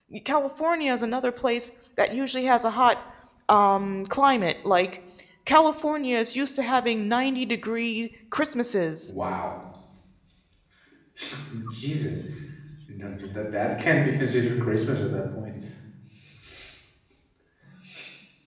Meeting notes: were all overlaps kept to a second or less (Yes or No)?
Yes